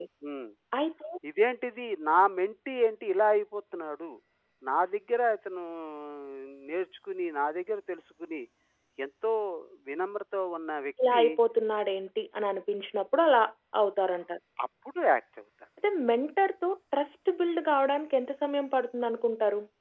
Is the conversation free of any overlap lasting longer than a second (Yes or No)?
Yes